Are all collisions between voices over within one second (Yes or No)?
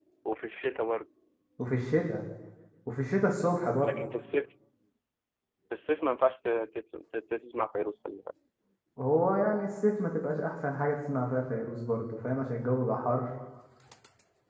Yes